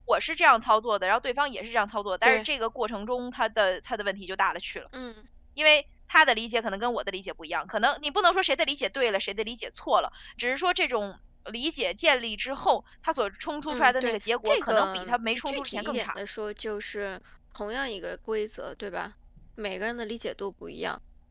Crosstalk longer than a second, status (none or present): present